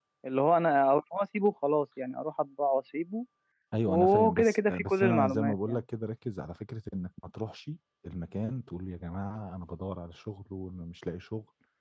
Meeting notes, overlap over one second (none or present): present